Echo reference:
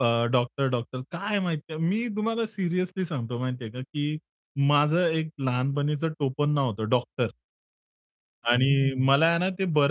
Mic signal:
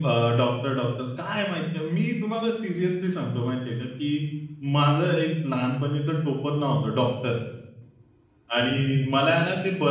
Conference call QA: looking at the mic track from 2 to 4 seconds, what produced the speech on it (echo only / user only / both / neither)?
echo only